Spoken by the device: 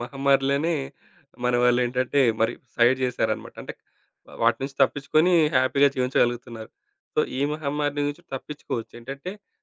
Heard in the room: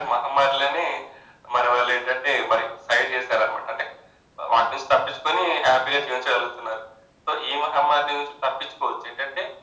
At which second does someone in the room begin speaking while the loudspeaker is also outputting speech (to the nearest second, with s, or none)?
none